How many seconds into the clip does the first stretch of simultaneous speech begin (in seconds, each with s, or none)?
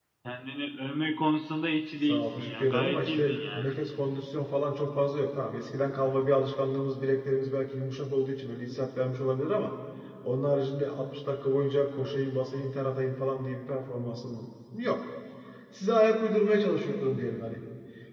1.9 s